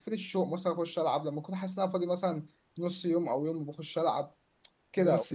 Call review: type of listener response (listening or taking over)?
listening